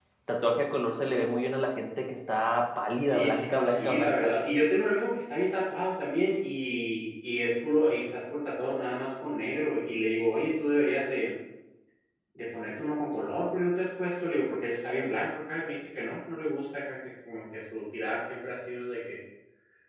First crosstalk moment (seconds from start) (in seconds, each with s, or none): 3.1 s